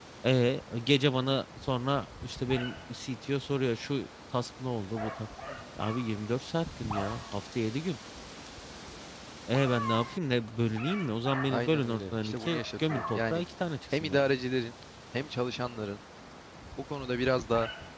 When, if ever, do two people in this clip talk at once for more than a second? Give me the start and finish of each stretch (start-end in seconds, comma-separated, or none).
11.5-13.4